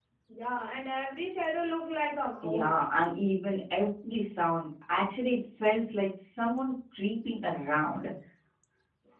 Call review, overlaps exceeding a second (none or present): none